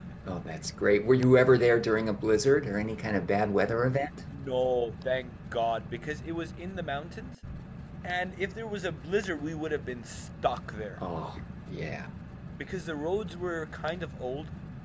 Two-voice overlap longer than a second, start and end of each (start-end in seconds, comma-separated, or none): none